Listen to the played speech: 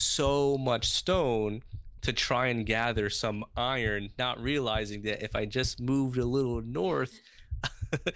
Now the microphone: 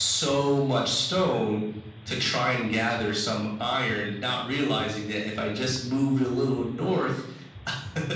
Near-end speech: none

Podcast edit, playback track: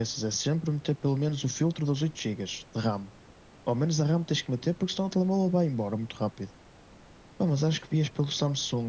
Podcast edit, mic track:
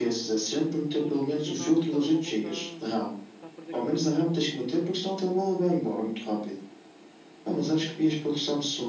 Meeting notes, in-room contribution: present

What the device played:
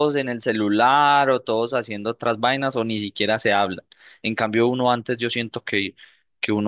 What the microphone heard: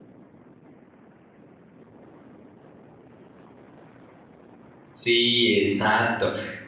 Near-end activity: present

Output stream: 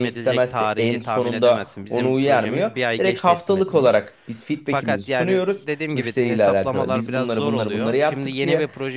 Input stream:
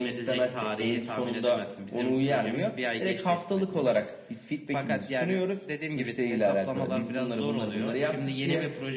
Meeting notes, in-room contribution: none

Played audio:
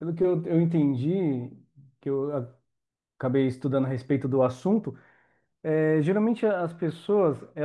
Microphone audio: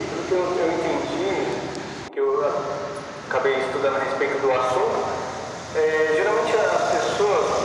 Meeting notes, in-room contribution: none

